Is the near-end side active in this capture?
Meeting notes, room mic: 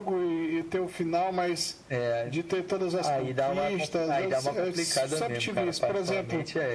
No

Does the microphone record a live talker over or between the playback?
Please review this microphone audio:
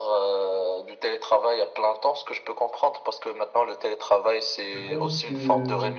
Yes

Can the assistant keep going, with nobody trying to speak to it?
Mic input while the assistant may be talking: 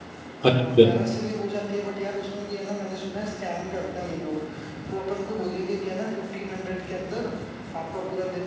No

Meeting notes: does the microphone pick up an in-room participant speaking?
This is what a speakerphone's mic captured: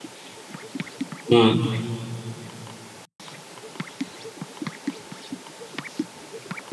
Yes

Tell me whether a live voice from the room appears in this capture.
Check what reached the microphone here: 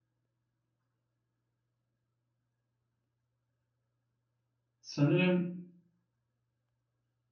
Yes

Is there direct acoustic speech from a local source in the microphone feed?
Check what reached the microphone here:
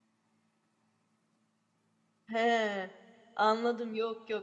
Yes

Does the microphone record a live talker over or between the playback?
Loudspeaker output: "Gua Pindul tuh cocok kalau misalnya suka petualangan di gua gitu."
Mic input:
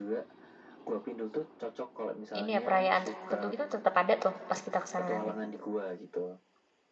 Yes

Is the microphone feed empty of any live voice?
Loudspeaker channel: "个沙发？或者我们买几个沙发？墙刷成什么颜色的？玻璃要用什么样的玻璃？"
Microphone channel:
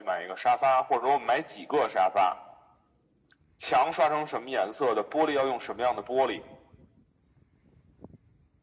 Yes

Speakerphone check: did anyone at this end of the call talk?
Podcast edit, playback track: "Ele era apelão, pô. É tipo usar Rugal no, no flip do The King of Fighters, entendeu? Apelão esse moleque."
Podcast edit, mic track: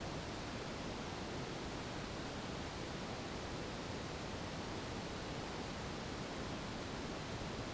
No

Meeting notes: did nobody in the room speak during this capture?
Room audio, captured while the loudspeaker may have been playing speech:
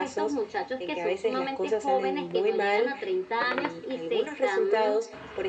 Yes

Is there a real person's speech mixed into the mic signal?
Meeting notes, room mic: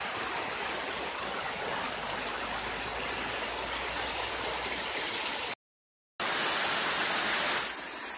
No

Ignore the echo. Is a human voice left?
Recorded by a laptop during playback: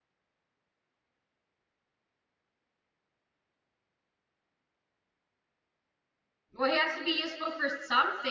Yes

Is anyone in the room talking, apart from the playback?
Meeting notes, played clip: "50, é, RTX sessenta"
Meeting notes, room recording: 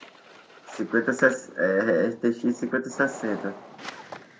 No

